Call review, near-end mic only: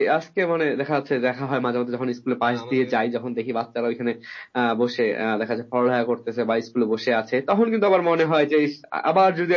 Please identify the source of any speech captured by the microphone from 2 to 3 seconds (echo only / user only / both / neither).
both